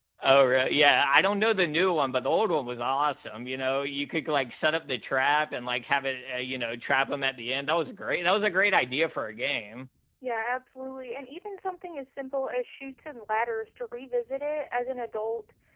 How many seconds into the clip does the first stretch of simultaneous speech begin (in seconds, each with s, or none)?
none